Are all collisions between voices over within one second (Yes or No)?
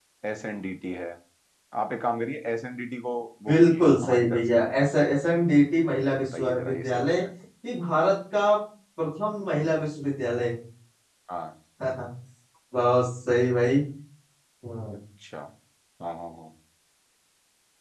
No